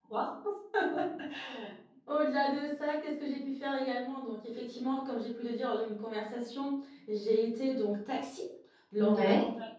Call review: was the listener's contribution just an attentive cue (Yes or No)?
Yes